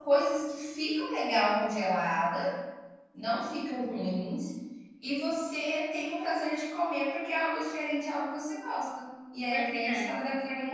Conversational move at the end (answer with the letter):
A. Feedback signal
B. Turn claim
A